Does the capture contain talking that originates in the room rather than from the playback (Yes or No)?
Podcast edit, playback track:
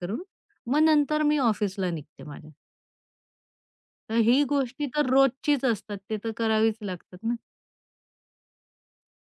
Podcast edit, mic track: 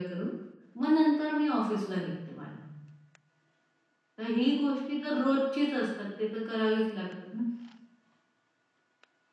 No